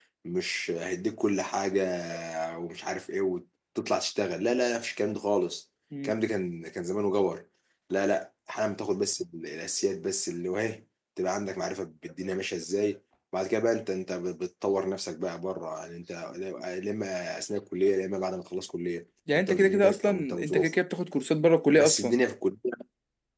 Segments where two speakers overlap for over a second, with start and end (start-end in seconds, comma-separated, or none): 19.3-20.7